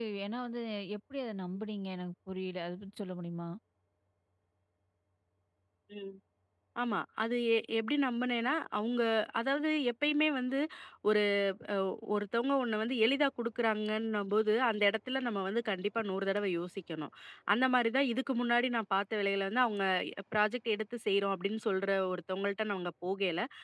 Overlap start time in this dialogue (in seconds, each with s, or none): none